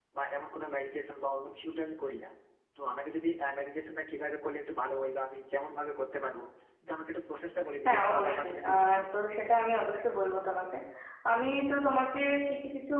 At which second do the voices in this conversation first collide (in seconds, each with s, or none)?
7.8 s